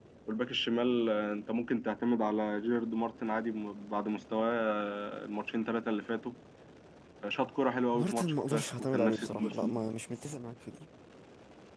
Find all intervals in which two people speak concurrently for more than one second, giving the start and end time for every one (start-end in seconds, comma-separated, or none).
7.9-9.7